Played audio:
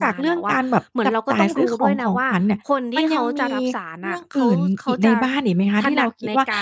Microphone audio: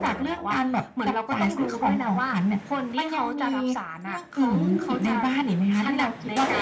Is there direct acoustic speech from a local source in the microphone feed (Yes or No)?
Yes